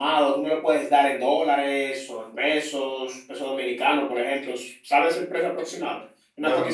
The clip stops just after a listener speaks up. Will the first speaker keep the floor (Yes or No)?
No